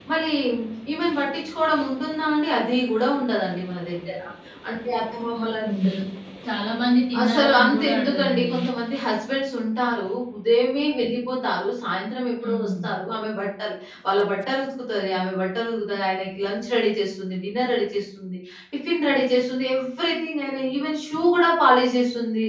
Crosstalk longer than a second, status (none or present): present